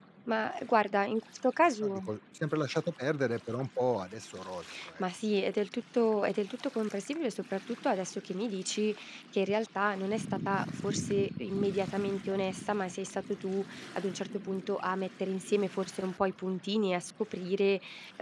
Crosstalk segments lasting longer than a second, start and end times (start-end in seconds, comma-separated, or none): none